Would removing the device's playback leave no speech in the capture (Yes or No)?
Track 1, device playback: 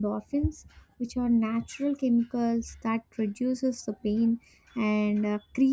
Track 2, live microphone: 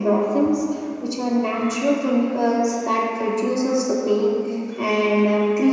Yes